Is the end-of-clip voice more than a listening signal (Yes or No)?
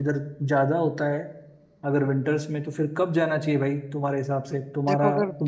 Yes